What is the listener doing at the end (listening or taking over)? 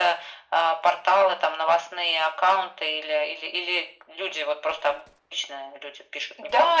taking over